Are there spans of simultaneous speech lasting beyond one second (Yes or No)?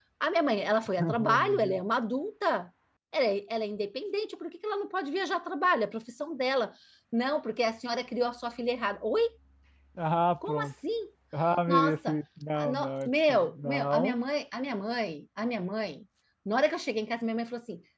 Yes